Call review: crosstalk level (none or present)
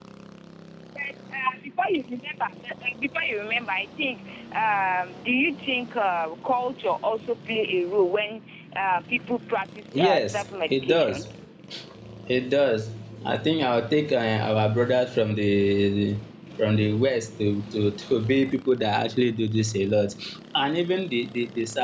present